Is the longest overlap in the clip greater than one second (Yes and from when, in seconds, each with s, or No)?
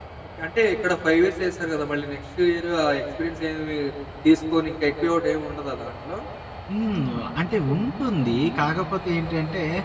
No